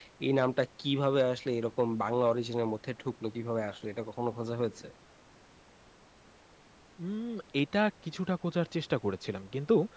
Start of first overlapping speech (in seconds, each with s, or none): none